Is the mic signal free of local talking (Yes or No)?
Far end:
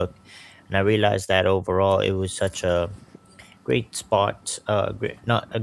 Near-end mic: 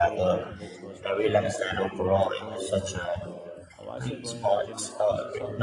No